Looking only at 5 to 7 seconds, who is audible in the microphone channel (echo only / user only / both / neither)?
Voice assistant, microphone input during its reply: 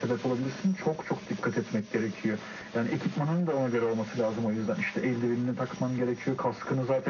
echo only